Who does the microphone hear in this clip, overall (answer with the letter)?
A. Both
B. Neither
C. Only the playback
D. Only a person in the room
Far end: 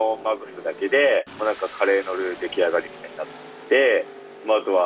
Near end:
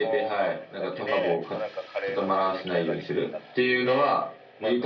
A